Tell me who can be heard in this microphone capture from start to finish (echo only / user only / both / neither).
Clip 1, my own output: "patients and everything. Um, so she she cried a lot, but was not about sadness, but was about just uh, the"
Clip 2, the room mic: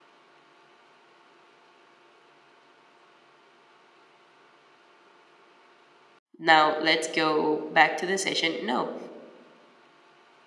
user only